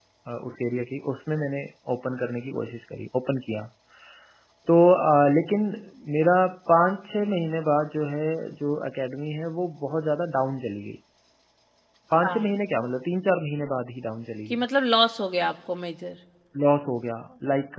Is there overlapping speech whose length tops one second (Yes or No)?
No